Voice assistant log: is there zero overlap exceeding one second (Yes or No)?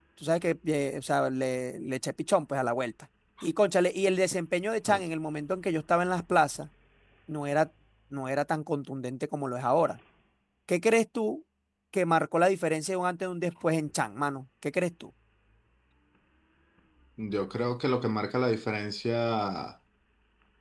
Yes